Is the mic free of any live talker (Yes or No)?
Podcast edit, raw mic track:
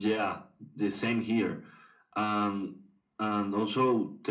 Yes